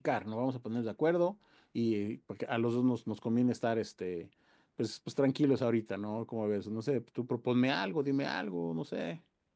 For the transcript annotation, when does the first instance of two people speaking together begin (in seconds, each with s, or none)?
none